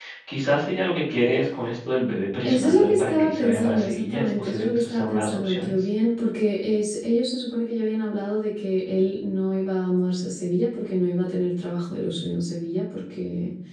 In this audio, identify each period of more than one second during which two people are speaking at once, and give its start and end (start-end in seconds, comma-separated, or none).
2.4-5.7